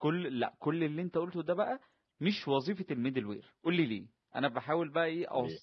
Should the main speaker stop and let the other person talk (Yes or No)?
No